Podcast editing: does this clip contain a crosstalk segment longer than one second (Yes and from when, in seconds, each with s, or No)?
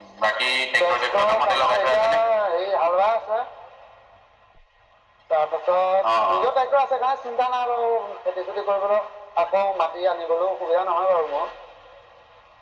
Yes, from 0.8 s